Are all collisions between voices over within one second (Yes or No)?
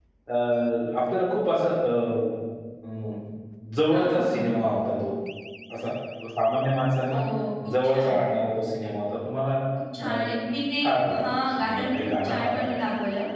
No